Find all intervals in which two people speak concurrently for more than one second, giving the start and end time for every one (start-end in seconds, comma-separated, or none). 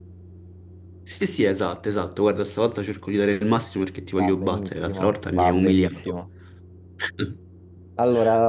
4.1-6.2